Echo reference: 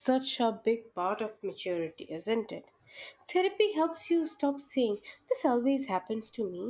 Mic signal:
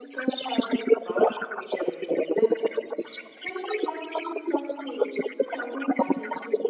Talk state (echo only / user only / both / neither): echo only